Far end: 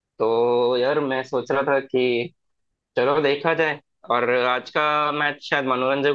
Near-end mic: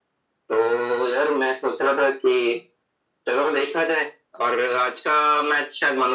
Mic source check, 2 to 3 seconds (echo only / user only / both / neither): echo only